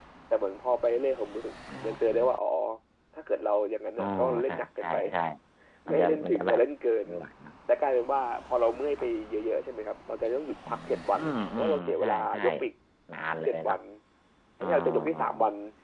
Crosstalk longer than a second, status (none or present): present